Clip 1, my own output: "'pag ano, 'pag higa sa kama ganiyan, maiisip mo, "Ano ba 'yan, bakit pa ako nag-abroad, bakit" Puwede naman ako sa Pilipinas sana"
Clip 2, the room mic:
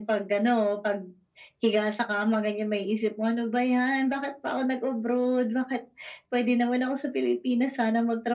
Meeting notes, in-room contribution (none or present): none